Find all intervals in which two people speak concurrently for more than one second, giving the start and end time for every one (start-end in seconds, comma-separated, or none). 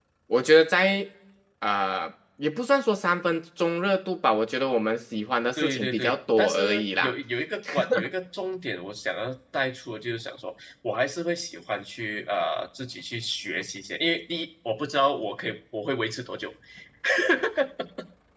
5.6-7.1